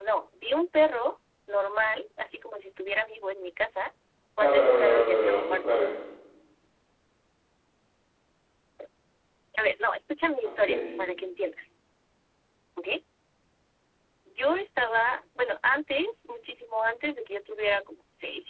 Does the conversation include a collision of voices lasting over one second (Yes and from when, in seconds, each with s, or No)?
Yes, from 4.4 s